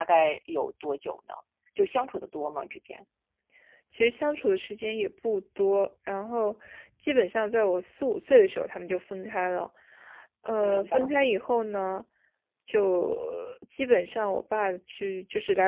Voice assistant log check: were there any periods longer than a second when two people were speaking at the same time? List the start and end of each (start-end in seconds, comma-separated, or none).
none